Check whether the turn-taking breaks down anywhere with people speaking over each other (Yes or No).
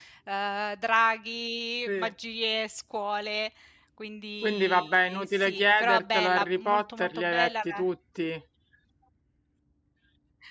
Yes